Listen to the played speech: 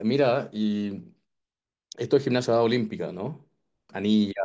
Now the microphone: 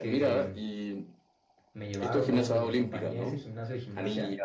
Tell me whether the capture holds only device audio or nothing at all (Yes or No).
No